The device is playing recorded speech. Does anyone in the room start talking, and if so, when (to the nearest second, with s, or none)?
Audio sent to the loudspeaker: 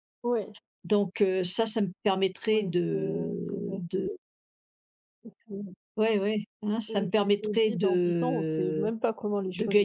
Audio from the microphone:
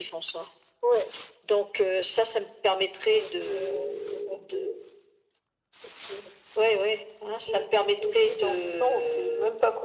none